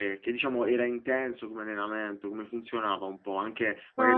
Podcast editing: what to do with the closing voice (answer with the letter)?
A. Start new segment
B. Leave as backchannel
A